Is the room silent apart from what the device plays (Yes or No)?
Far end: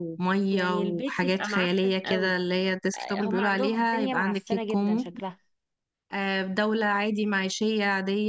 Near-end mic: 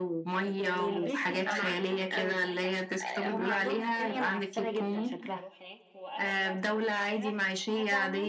No